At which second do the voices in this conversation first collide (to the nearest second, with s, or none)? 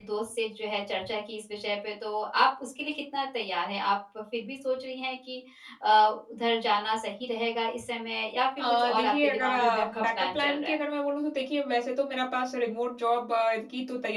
9 s